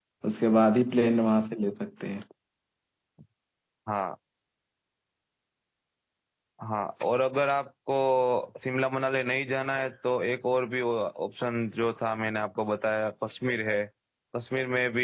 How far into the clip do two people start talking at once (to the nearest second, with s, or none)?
none